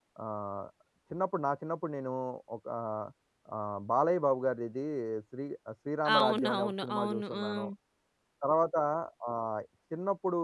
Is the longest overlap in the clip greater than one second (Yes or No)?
Yes